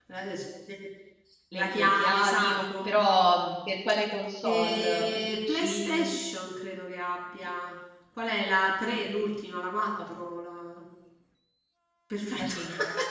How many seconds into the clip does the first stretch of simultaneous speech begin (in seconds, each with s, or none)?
1.6 s